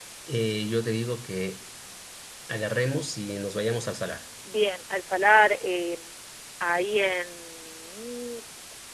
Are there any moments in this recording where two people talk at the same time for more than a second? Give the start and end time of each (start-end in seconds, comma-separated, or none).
none